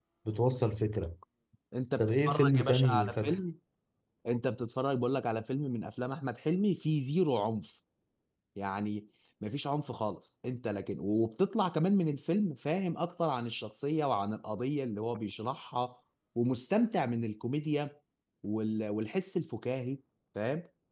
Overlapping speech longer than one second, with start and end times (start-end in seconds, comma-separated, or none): 2.0-3.4